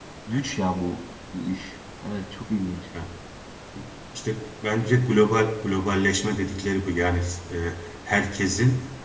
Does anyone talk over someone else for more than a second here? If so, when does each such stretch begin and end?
none

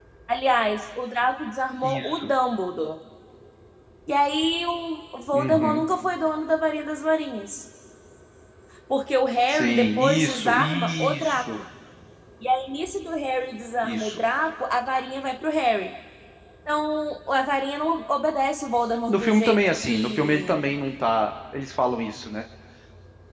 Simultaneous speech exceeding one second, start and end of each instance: 9.5-11.4, 19.1-20.6

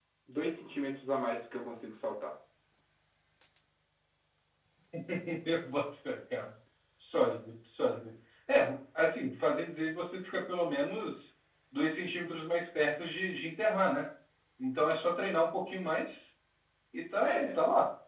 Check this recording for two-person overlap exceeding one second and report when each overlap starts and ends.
none

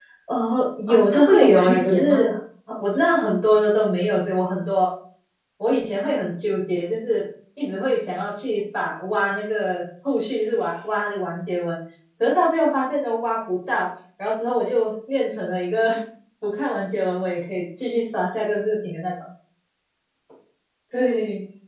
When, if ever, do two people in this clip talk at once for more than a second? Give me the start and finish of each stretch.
0.9-2.3

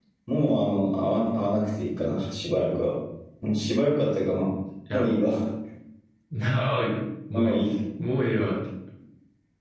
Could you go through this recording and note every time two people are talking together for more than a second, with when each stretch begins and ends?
none

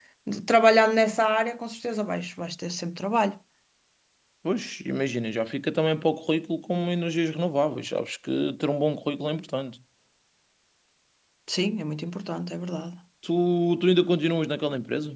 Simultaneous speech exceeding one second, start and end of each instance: none

